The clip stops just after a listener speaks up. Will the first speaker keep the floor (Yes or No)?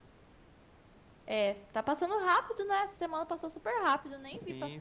No